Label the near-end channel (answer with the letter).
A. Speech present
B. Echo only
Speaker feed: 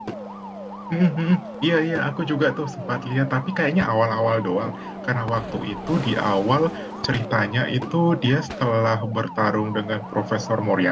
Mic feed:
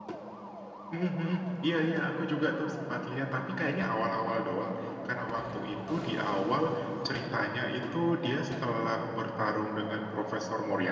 B